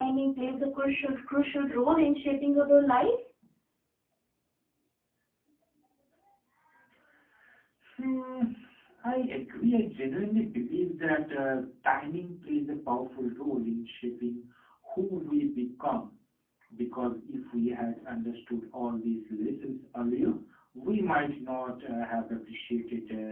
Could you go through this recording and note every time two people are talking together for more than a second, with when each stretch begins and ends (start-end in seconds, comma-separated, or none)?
none